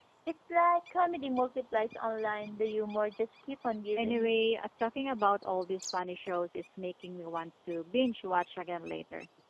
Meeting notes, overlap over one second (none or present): none